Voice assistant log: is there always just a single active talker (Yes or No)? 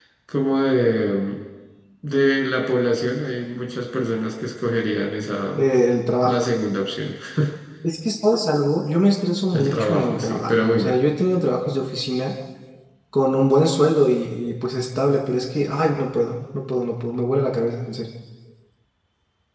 No